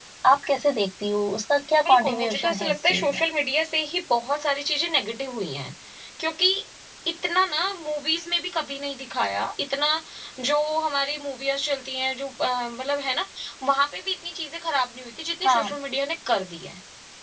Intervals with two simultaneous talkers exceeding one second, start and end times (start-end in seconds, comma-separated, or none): 1.9-3.2